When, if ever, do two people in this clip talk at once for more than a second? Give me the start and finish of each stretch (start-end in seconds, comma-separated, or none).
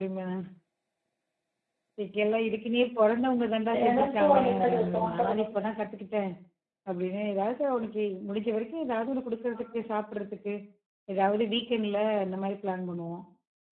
3.9-5.6